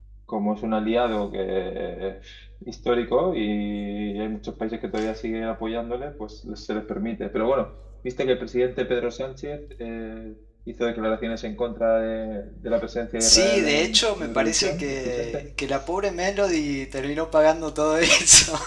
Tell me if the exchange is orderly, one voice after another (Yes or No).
No